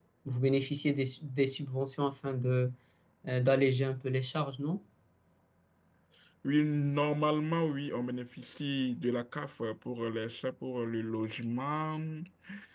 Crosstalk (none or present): none